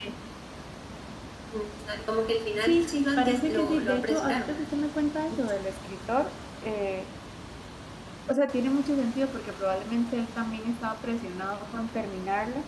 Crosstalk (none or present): present